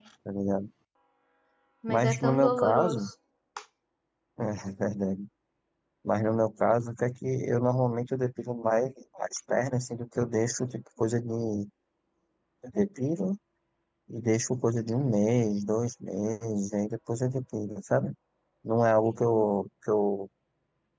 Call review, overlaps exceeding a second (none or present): present